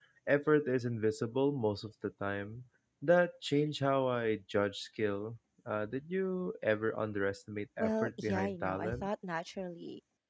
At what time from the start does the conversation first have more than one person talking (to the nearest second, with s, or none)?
8 s